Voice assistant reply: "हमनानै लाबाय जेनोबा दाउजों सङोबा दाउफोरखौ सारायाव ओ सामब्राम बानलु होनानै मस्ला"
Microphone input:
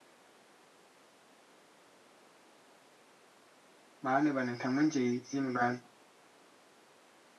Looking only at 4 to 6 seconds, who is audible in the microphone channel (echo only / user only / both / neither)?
user only